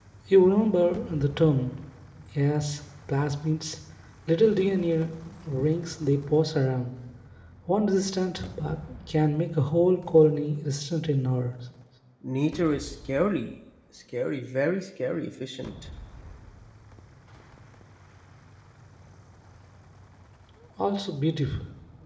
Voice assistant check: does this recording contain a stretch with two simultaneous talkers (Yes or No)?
No